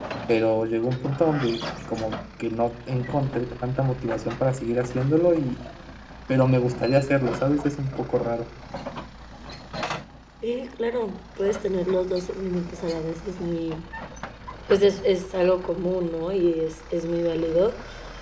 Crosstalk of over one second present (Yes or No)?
No